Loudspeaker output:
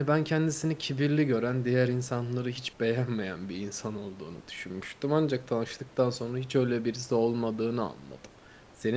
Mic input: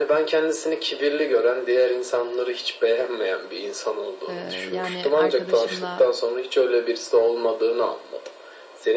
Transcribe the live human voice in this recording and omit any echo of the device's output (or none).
Eee, yani, arkadaşımla